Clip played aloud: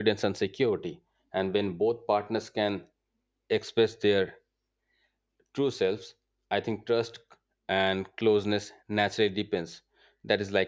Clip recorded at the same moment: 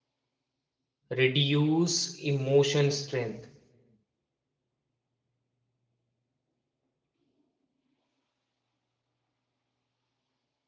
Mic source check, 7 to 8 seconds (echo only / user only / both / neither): neither